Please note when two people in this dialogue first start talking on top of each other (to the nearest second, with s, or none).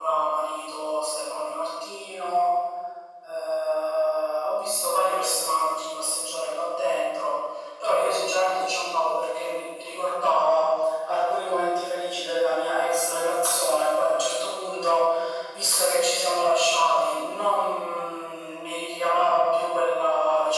none